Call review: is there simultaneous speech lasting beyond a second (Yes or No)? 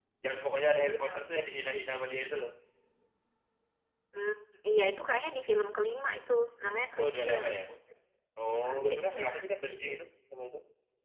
Yes